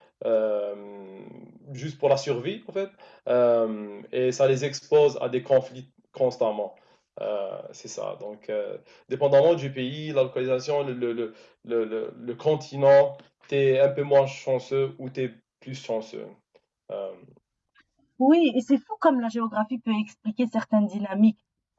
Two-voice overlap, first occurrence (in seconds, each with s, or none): none